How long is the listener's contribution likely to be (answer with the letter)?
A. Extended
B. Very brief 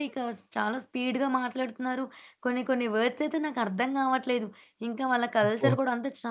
B